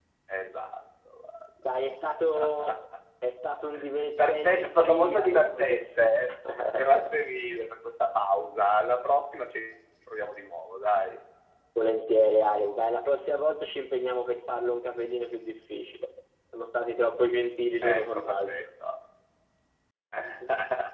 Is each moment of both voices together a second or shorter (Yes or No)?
No